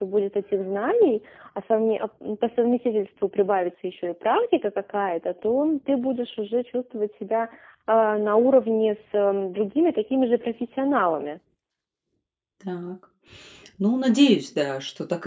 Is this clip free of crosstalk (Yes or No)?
Yes